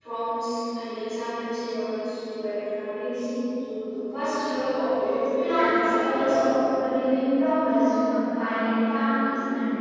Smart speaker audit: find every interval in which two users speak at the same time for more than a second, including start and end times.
5.0-6.3

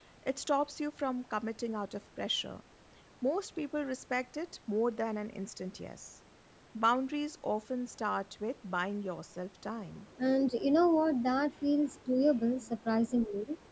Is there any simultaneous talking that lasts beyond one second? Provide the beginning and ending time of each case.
none

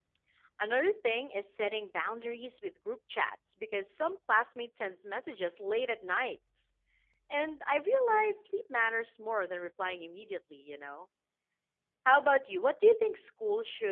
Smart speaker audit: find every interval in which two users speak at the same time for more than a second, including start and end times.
none

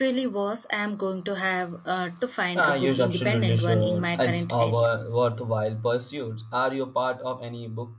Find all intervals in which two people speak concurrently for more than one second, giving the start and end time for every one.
2.6-4.9

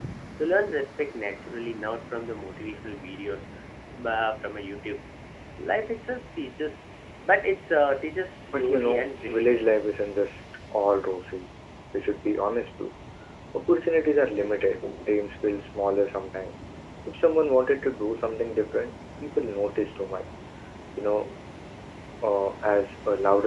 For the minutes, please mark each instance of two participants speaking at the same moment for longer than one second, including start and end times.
8.5-9.7

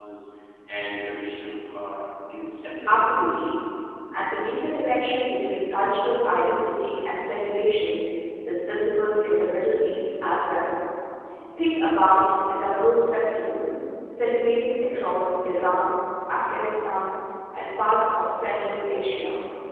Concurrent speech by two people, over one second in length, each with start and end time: none

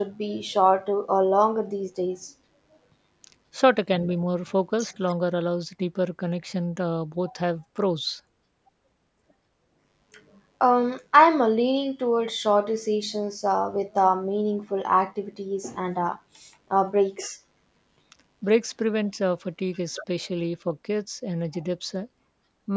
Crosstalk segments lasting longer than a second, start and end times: none

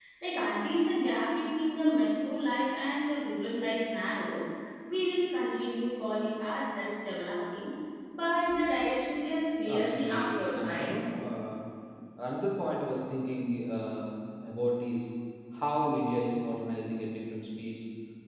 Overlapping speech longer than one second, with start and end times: 9.7-10.9

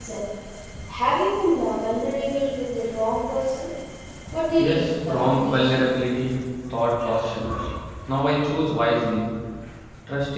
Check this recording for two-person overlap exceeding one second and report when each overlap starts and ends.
4.6-5.8

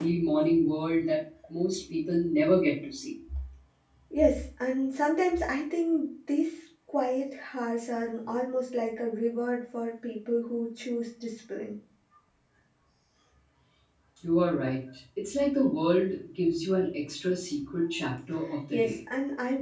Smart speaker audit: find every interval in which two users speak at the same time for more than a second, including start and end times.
none

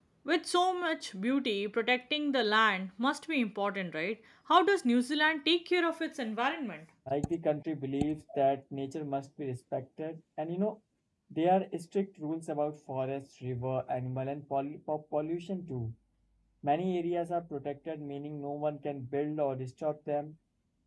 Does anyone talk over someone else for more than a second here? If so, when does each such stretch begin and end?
none

